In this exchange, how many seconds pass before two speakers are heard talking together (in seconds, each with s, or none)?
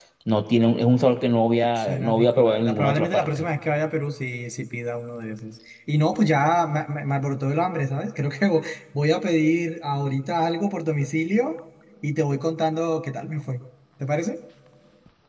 1.8 s